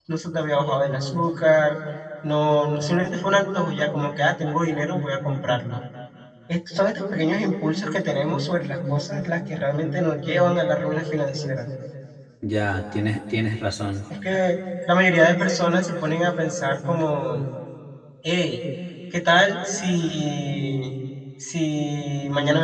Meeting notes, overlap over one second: none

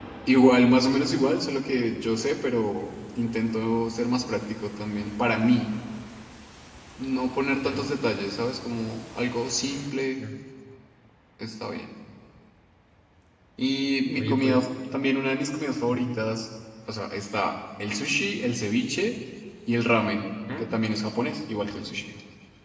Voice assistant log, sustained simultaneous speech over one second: none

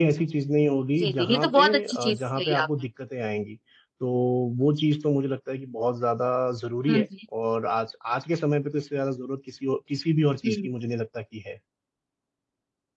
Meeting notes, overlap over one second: present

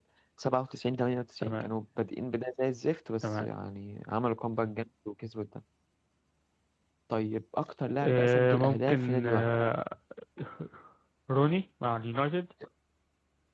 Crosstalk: present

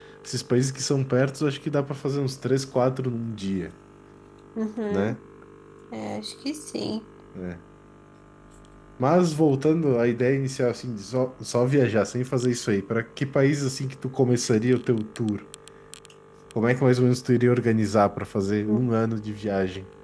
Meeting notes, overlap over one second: none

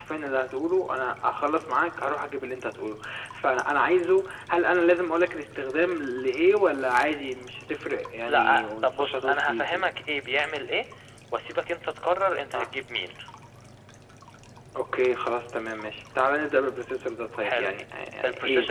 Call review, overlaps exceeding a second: present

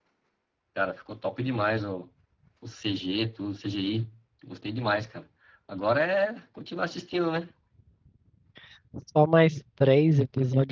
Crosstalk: none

